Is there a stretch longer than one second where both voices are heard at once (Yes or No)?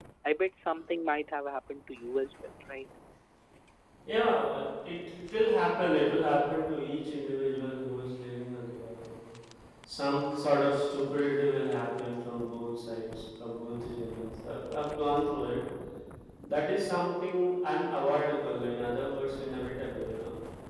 No